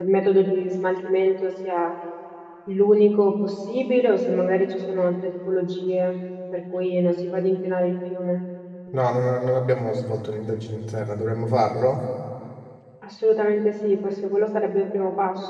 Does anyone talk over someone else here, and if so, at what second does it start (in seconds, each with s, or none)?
none